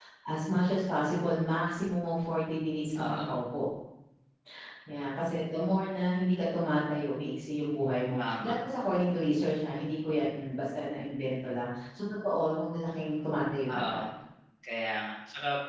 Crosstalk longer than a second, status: none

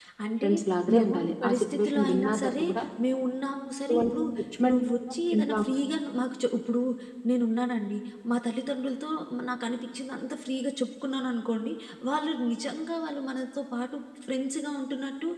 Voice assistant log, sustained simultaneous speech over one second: present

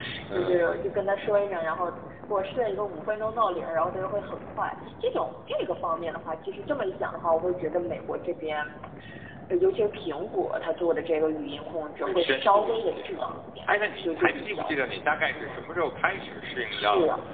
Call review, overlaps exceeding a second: present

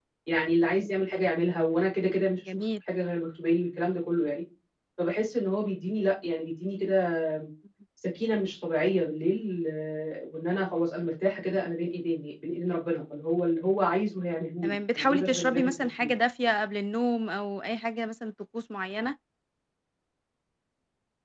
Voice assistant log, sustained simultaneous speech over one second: present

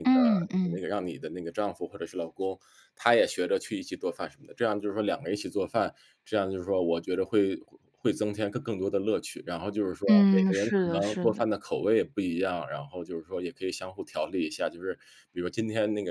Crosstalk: present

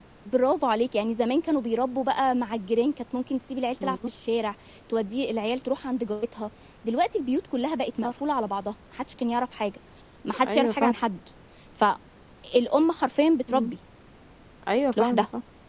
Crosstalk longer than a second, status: none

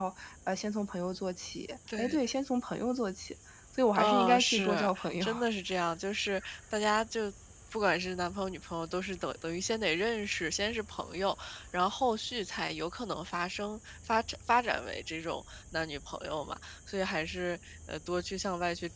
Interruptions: present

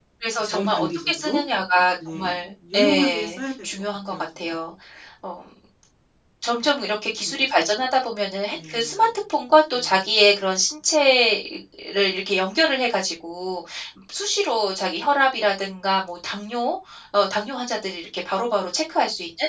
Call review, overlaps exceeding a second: present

